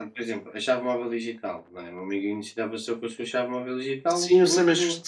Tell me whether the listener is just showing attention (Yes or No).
No